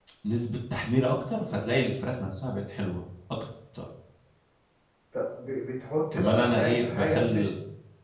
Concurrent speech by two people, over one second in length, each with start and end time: 6.1-7.5

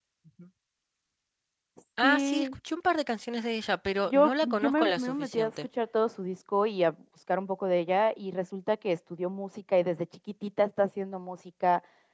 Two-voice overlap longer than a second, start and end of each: 4.1-5.5

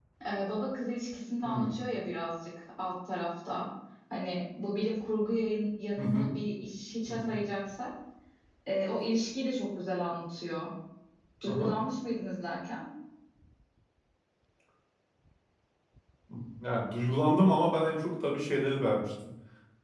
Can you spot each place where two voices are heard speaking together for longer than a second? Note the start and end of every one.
none

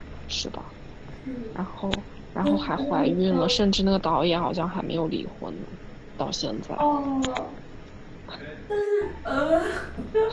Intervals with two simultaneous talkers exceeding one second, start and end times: 2.4-3.6

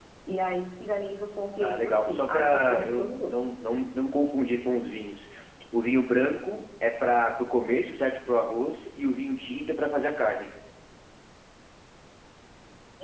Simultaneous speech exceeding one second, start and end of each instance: 1.6-3.4

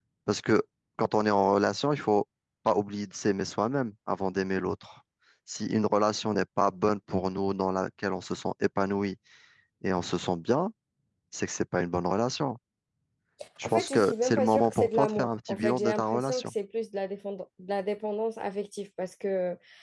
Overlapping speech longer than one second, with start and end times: 13.6-16.5

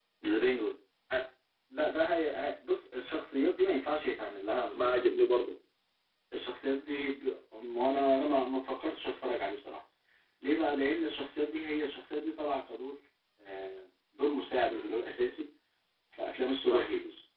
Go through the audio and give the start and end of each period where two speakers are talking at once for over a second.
none

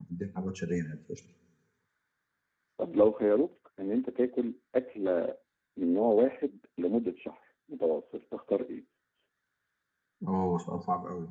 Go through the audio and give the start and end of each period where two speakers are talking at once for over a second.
none

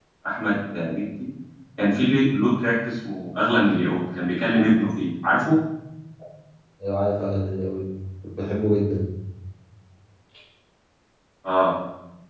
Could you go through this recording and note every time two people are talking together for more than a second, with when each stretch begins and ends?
none

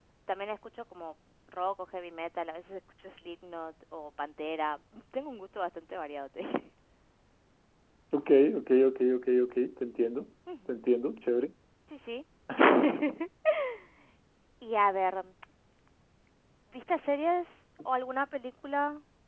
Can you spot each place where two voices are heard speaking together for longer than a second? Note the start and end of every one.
none

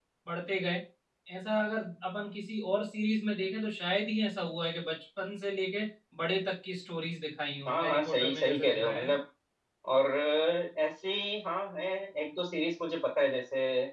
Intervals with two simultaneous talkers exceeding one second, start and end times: 7.7-9.1

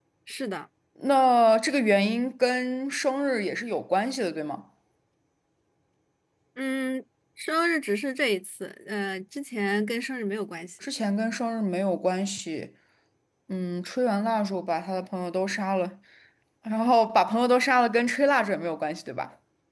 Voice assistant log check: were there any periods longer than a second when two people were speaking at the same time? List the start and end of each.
none

